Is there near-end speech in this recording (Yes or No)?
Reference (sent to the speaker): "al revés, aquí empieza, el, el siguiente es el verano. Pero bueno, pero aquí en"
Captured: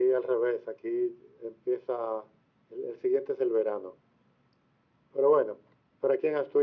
No